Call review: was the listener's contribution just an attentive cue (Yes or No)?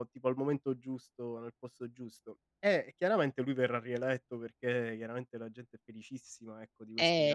Yes